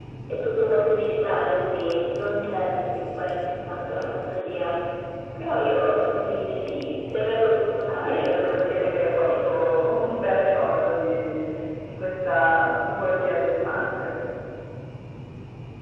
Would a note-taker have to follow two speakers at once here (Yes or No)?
Yes